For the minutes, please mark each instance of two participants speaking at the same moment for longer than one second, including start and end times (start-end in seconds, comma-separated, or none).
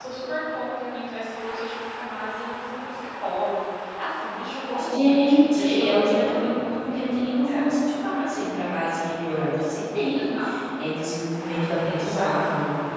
4.9-6.5